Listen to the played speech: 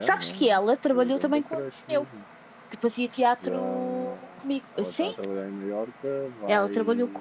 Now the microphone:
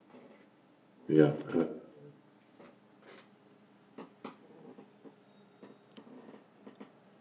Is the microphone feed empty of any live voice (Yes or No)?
No